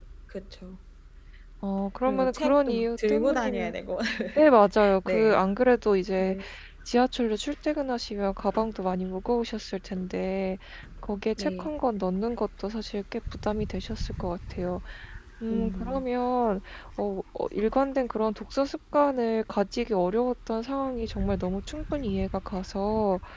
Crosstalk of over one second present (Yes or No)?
Yes